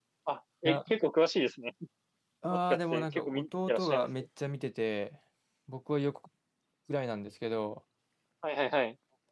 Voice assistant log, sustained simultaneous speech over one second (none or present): present